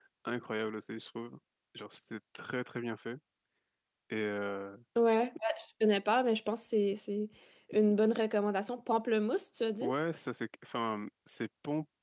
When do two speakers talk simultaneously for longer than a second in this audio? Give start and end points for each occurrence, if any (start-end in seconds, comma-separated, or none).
none